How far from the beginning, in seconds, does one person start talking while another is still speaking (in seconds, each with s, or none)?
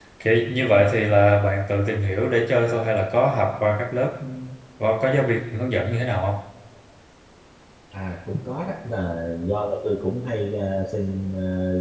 none